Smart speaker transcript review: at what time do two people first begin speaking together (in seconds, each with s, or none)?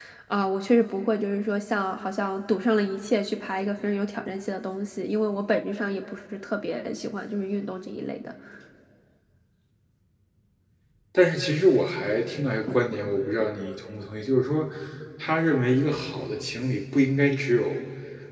none